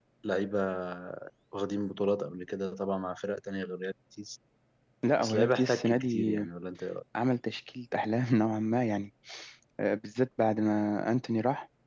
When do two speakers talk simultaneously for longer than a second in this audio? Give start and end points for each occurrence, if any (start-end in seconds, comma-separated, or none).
5.2-6.4